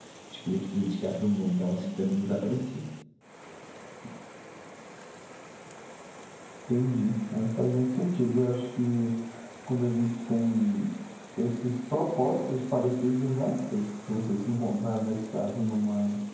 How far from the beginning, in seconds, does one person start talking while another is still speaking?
none

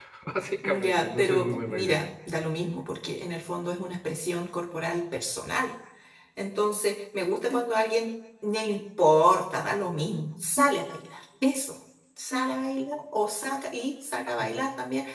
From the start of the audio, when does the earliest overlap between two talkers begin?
1 s

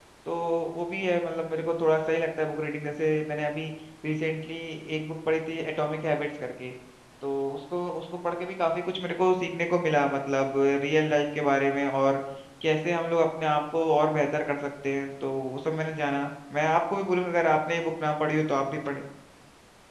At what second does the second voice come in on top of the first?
none

